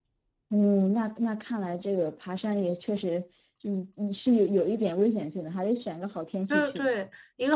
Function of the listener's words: taking over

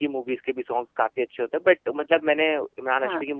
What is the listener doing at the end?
listening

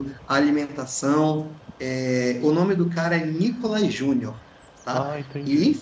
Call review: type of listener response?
listening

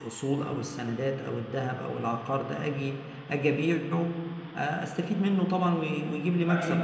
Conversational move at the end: taking over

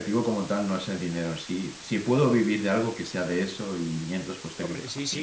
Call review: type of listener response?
taking over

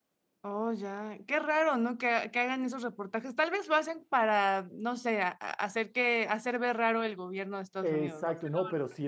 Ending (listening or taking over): taking over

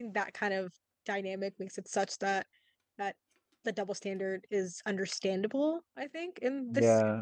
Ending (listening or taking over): taking over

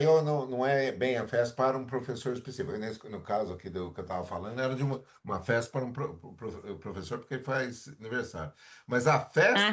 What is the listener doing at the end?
listening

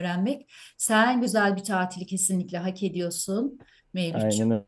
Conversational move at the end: taking over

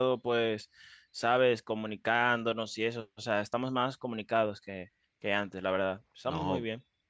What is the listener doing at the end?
taking over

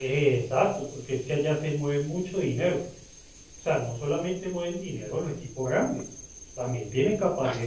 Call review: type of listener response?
listening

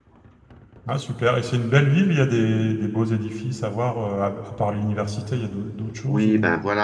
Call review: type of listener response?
taking over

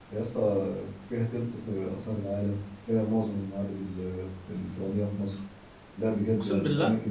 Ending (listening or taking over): listening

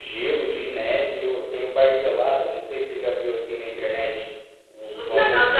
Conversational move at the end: taking over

